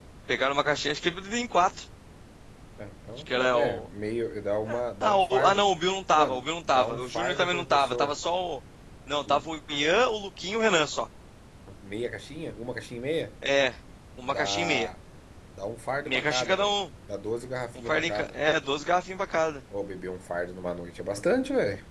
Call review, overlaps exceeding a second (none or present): present